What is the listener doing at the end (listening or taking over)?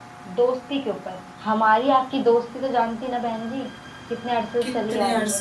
taking over